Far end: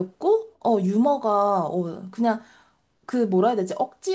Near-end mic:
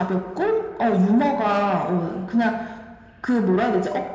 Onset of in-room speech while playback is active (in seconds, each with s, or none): none